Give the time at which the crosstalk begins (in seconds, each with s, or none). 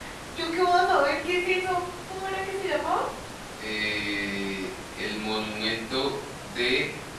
none